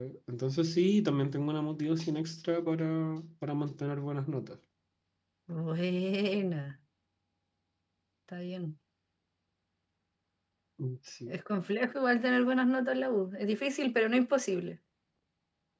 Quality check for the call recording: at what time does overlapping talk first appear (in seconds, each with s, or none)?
none